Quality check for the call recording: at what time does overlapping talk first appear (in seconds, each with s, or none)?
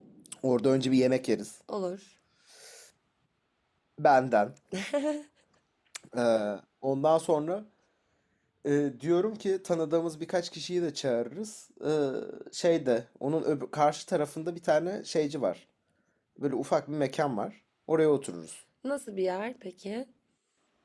none